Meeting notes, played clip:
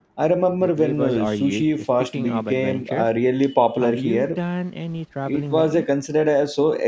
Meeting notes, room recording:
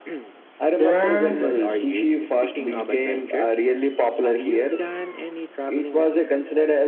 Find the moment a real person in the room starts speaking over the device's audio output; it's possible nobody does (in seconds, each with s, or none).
0.7 s